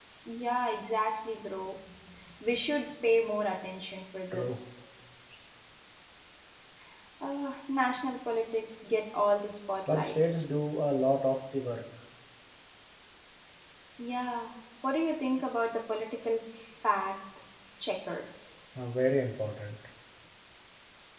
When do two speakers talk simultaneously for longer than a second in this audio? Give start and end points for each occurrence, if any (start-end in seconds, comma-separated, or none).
none